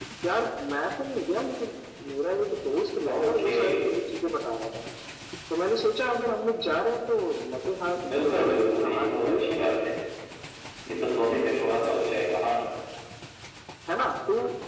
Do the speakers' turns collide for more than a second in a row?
Yes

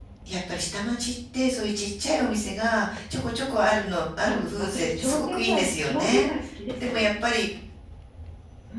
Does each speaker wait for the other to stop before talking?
No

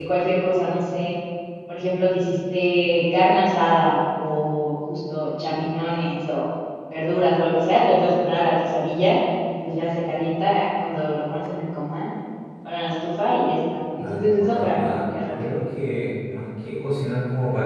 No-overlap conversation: No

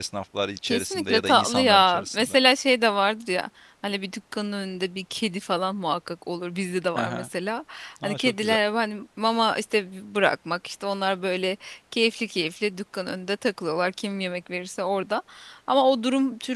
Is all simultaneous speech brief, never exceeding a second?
No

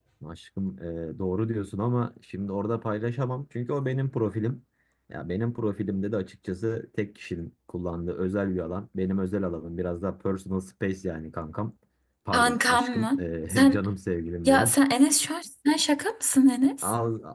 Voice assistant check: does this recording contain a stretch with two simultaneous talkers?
Yes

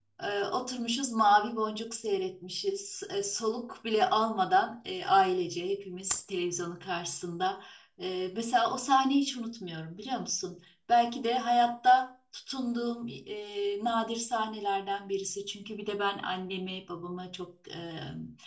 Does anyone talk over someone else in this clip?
No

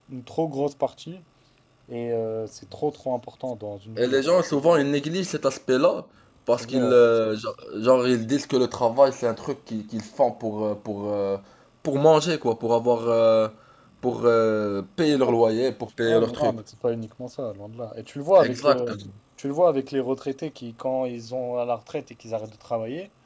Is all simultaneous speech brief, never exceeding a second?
Yes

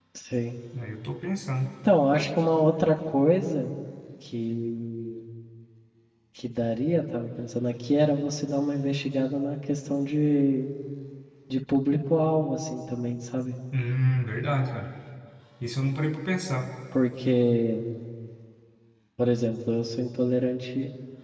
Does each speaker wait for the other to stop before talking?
Yes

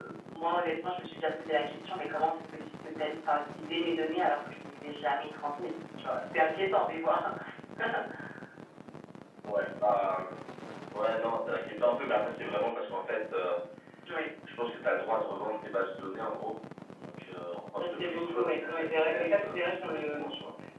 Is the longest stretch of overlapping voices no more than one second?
No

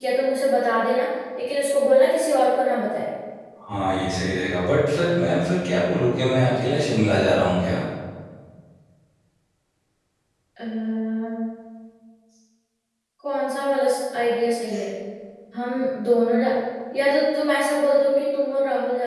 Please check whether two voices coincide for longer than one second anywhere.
No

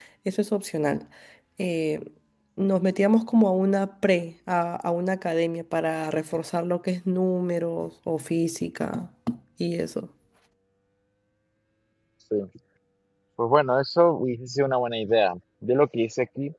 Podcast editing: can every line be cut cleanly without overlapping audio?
Yes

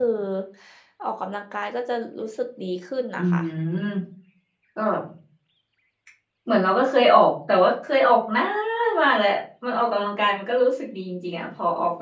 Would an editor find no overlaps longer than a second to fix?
Yes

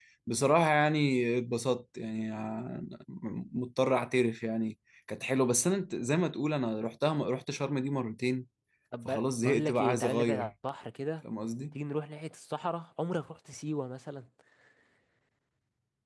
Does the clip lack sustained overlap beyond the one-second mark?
No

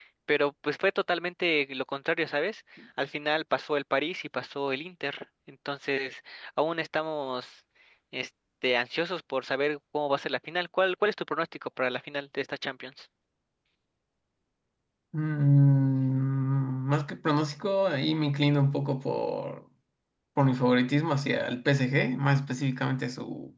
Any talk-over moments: No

